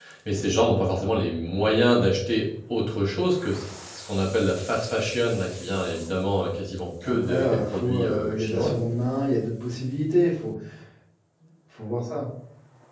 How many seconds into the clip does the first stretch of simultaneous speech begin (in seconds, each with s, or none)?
7.0 s